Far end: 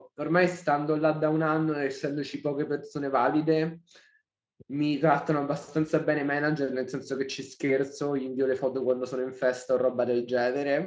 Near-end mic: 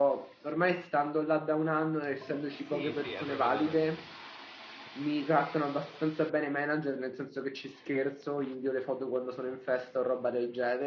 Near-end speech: present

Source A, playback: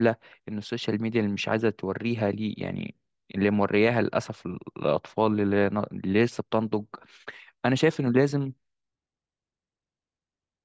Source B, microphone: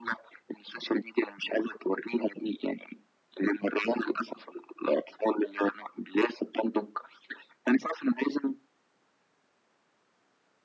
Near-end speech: none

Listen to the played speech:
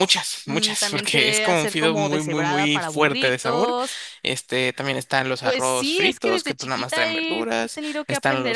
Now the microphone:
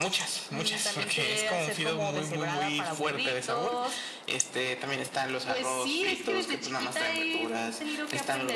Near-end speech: none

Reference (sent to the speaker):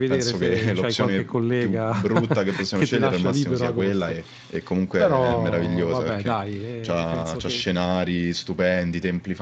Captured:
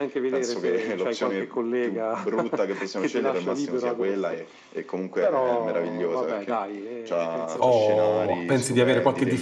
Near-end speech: present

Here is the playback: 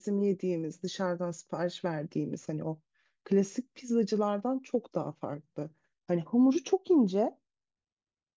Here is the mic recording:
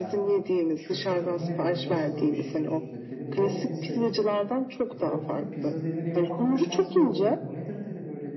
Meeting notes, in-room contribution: present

